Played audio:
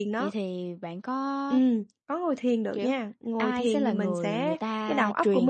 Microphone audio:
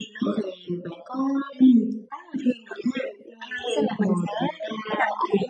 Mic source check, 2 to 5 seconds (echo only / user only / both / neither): echo only